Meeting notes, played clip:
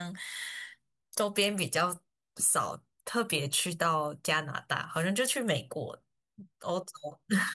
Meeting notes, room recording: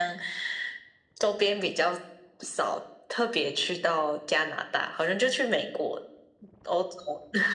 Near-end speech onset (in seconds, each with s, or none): none